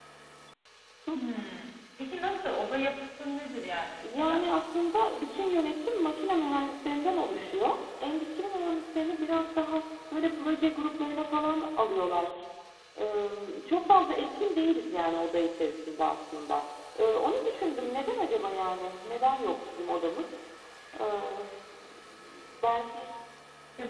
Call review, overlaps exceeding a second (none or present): none